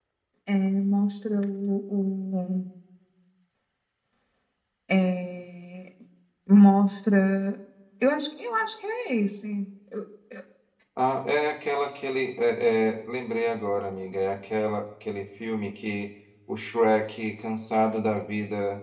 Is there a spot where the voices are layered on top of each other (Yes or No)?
No